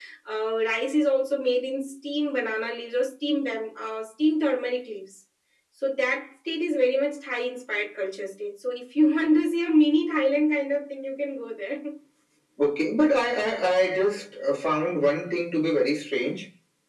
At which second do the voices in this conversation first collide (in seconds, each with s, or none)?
none